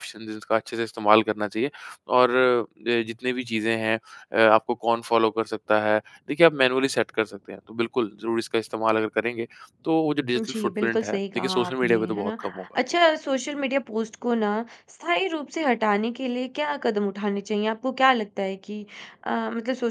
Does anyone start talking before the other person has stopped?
Yes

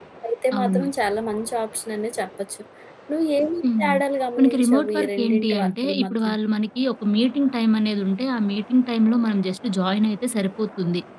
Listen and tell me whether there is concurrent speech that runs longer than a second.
Yes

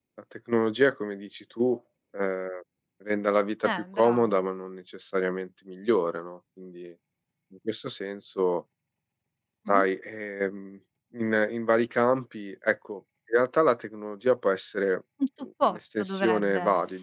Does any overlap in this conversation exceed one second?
Yes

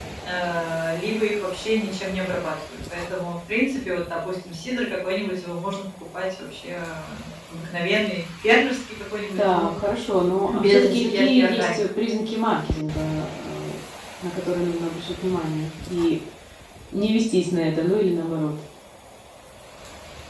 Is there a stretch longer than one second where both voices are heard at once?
Yes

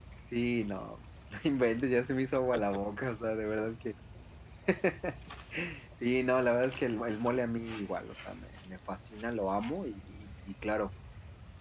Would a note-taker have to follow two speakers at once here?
No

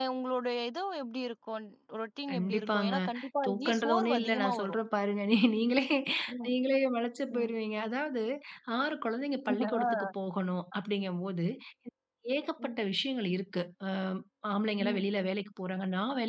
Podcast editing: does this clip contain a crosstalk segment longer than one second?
Yes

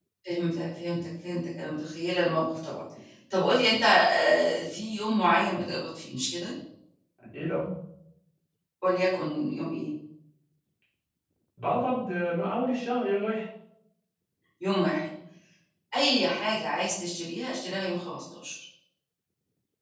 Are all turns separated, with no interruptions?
Yes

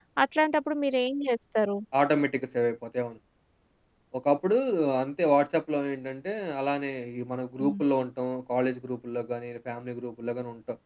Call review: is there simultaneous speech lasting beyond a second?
No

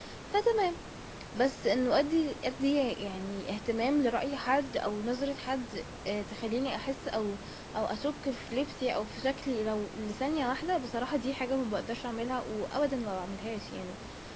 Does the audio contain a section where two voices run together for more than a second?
No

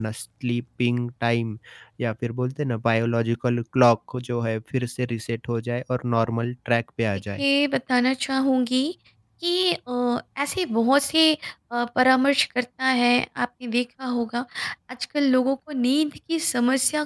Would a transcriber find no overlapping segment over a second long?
Yes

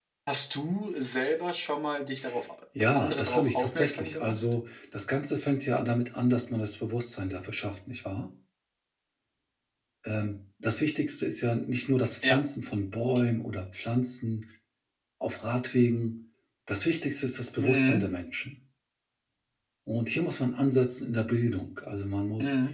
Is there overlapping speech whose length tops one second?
Yes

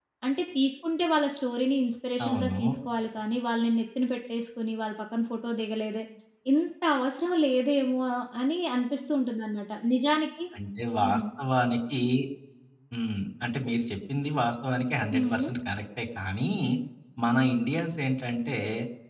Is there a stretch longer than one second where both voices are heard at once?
No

